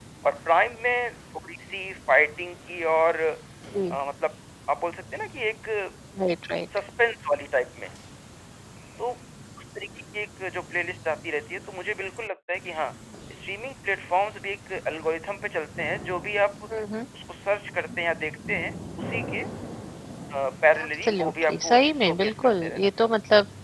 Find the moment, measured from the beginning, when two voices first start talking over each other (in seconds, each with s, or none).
20.8 s